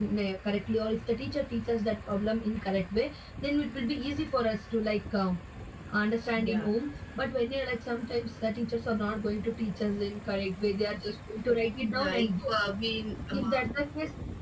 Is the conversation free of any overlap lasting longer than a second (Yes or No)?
Yes